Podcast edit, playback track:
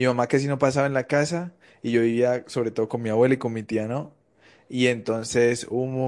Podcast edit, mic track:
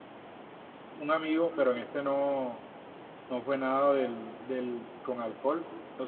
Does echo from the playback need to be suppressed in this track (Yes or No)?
No